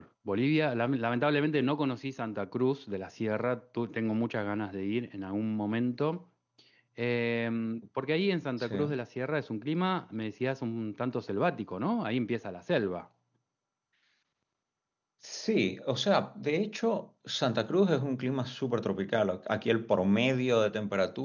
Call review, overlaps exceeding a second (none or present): none